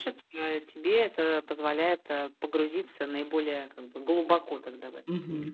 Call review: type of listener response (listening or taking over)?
taking over